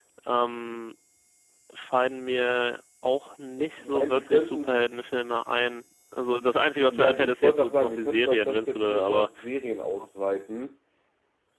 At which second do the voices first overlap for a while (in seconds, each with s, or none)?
3.6 s